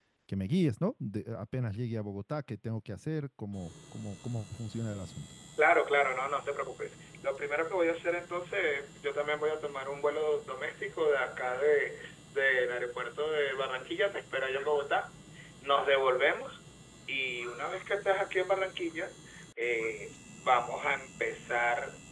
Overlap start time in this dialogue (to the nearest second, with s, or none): none